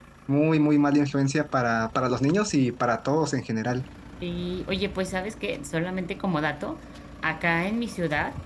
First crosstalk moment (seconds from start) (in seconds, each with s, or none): none